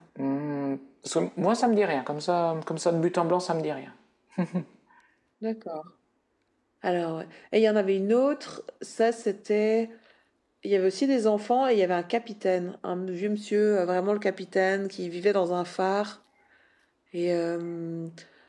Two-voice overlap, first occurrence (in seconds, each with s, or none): none